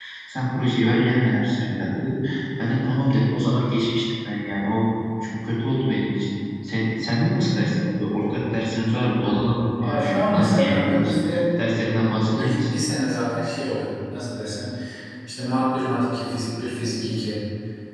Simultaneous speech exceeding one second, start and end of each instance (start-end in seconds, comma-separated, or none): 9.8-11.1